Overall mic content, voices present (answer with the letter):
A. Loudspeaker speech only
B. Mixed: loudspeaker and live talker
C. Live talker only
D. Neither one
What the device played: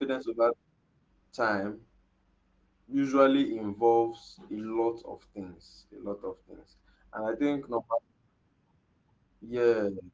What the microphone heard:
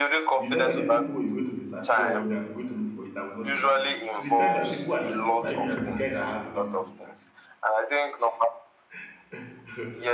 B